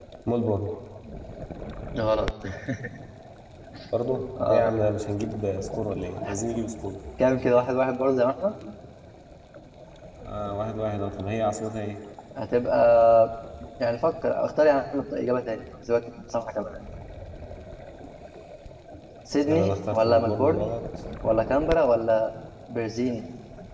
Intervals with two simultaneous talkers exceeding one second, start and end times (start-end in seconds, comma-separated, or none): 19.4-20.7